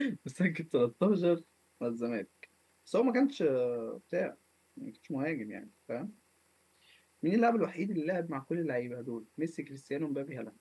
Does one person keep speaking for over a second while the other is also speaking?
No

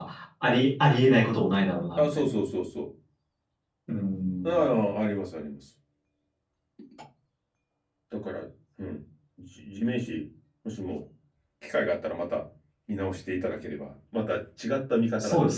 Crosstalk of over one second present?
No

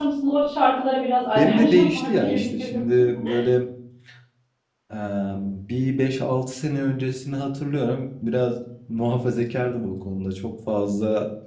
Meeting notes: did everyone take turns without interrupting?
No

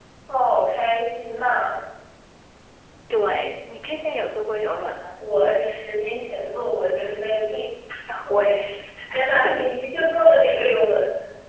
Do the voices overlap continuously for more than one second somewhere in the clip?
No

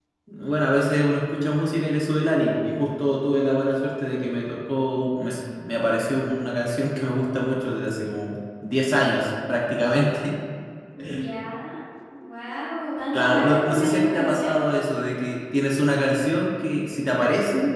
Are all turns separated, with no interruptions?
No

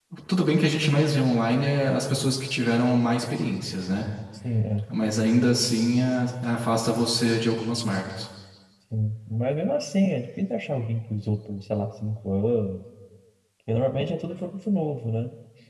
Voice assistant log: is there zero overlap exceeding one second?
Yes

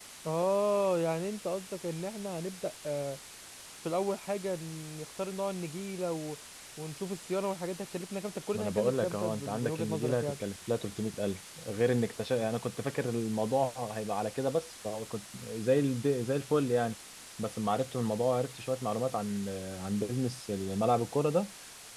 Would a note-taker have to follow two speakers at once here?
Yes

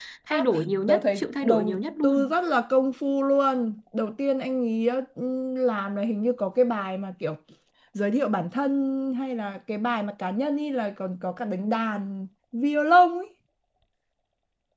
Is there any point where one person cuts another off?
Yes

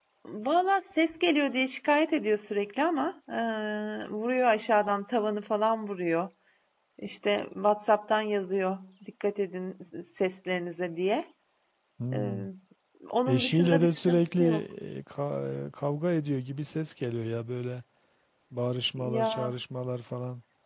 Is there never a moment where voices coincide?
No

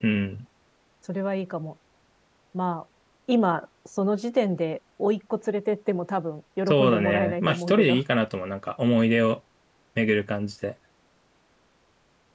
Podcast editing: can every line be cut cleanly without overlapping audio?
No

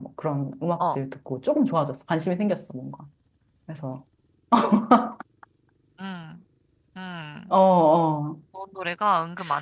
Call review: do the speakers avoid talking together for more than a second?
Yes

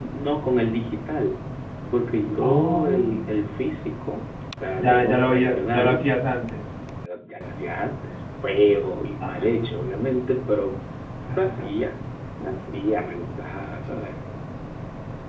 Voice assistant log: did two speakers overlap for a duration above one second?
Yes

